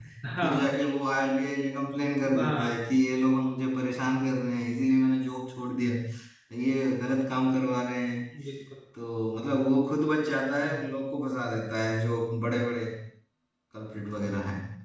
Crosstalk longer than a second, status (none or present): none